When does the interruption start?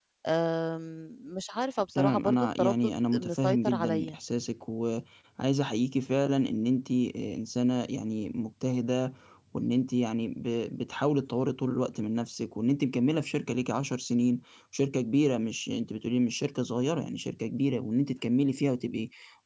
1.9 s

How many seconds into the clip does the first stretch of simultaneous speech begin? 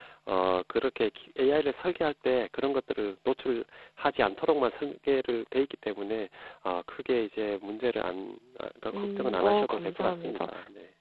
8.9 s

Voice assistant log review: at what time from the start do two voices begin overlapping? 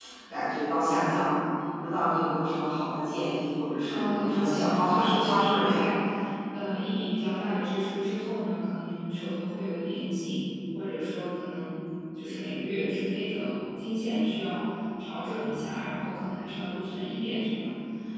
3.9 s

